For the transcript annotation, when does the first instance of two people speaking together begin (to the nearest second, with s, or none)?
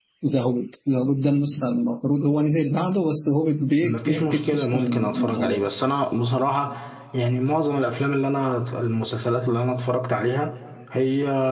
4 s